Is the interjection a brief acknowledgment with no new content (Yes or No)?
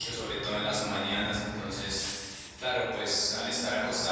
Yes